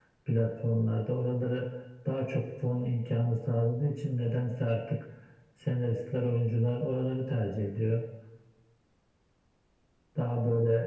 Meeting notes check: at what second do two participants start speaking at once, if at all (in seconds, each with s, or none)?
none